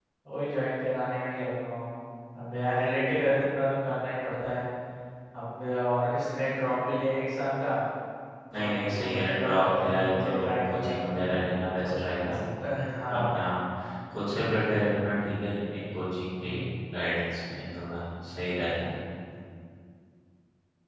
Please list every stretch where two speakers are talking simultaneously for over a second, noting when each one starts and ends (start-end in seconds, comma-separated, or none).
8.6-11.0